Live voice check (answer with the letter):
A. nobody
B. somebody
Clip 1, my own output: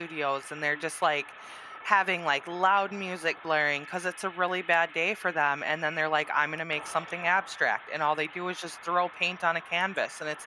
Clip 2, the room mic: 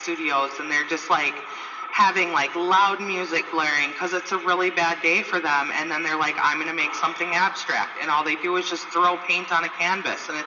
A